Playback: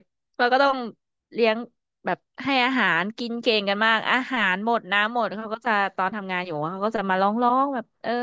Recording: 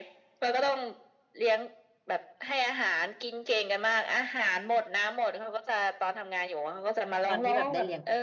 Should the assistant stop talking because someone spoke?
Yes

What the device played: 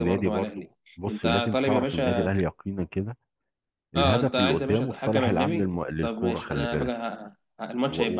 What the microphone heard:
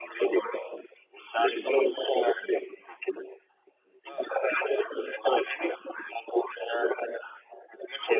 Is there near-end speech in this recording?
No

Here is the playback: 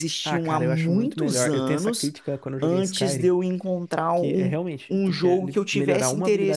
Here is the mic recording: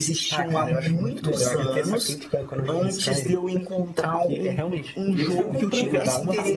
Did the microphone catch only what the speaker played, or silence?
No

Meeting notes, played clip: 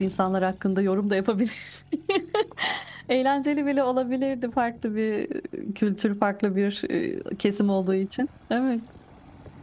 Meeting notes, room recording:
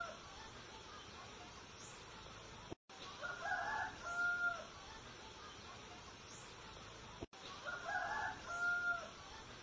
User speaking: No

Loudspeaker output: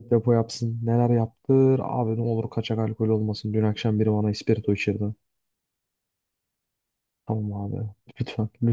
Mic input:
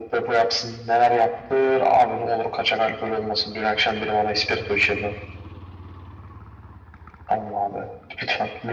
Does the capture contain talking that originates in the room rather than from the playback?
No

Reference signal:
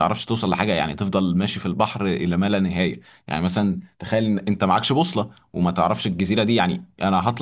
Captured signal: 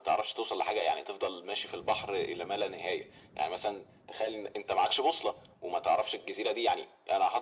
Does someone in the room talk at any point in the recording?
No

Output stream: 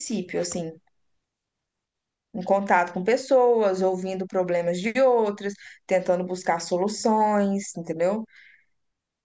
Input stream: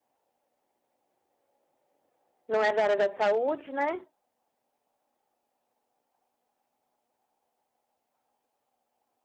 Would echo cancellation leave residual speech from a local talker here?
Yes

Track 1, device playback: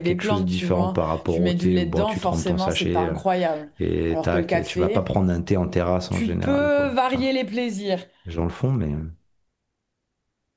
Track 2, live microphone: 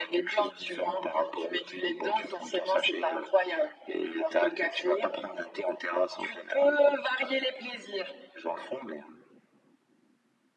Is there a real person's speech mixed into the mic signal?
No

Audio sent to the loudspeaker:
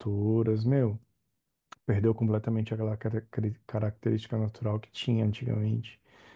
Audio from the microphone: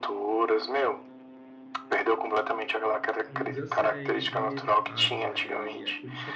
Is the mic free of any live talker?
No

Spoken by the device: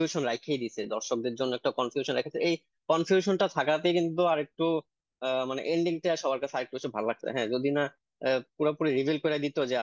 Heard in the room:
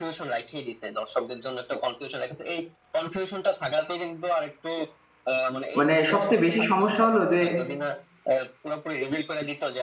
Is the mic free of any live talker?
No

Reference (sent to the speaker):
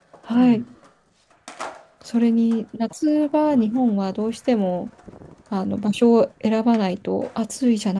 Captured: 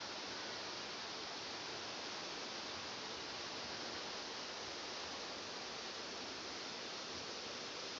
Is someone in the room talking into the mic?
No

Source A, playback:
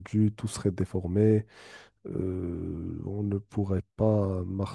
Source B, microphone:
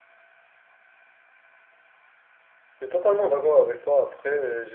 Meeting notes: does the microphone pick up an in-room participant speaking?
Yes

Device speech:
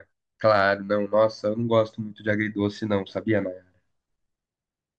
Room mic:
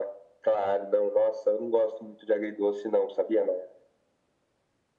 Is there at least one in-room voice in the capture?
No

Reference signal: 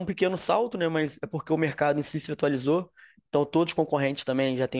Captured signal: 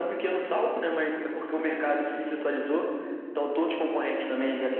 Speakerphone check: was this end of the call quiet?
Yes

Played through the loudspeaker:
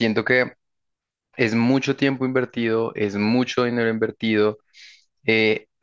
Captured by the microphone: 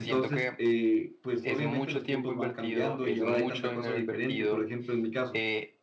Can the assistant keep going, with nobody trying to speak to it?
No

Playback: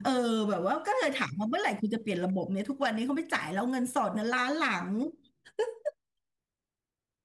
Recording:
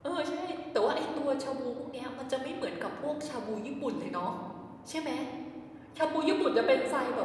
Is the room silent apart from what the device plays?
No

